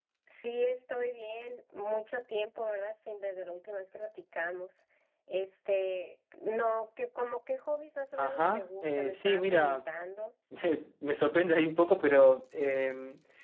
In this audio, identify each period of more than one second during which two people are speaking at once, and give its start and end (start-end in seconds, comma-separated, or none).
8.2-9.8